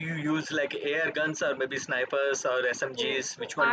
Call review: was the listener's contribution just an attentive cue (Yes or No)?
No